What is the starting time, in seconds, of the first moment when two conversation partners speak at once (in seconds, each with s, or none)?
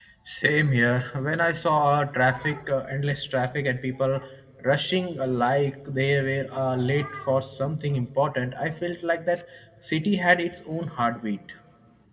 none